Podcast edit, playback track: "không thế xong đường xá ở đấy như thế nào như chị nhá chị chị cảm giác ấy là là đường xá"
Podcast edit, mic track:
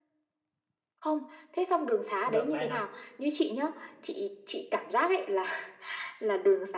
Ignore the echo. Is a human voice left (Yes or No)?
Yes